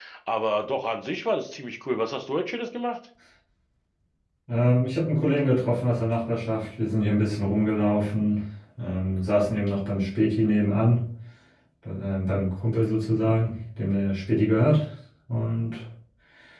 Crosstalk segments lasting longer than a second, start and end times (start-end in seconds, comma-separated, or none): none